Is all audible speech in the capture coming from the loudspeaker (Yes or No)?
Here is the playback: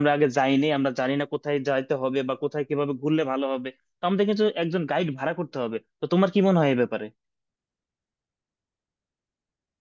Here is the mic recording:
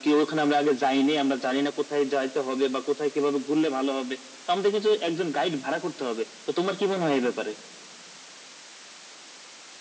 Yes